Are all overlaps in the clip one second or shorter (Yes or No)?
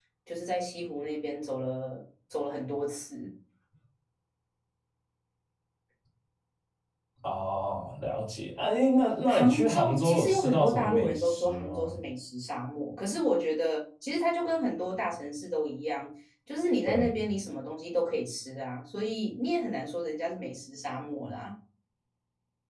No